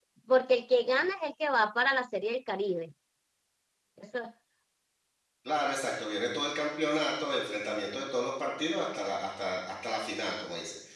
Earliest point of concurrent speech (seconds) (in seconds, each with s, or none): none